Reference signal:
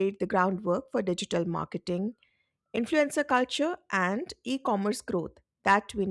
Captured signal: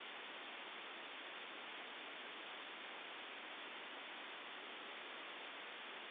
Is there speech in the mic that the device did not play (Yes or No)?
No